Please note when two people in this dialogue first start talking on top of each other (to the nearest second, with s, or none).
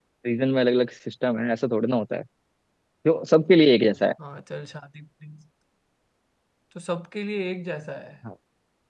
none